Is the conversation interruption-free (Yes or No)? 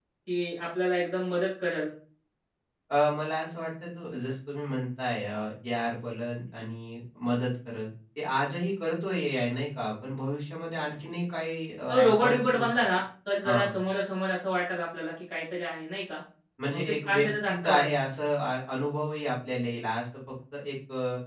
No